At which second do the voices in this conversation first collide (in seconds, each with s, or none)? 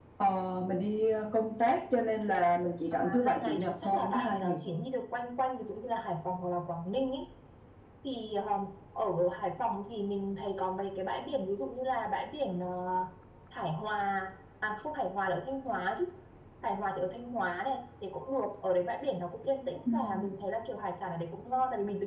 2.9 s